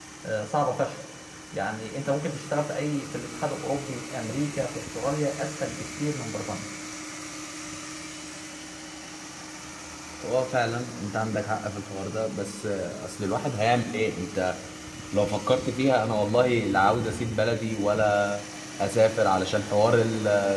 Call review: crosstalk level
none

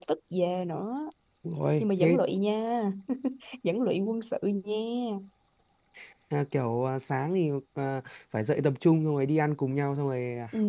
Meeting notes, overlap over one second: none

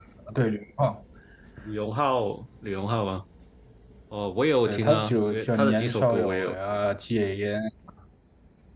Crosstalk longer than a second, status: present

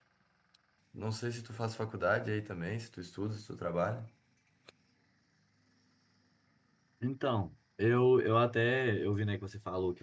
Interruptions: none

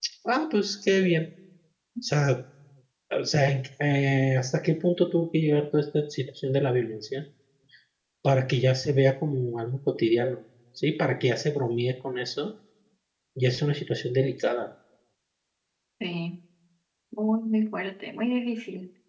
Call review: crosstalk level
none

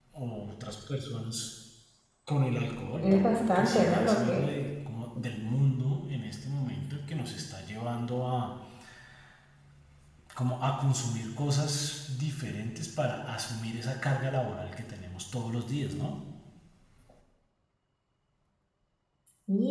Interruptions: present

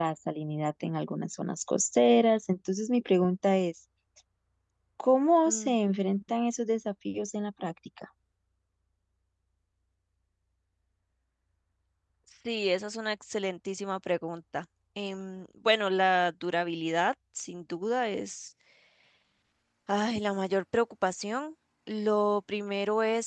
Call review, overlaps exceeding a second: none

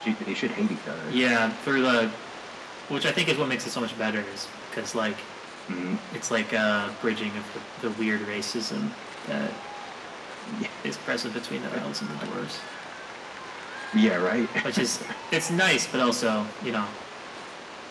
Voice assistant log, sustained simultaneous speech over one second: none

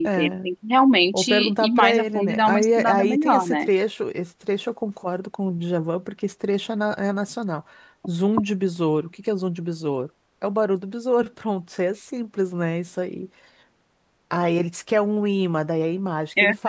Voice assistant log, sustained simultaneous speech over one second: present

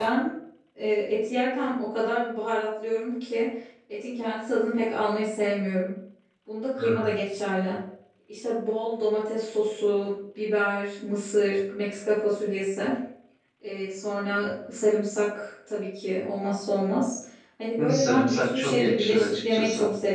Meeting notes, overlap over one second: present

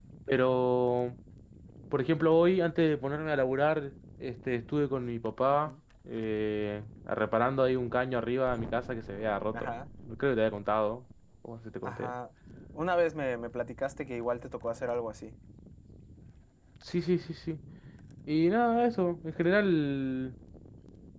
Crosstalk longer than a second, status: none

